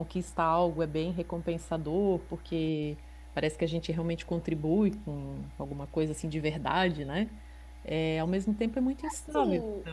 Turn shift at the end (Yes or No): Yes